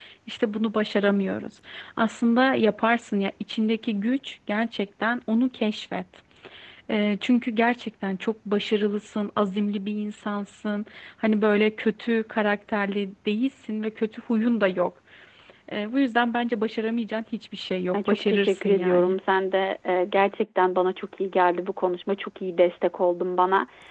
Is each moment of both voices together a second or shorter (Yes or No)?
No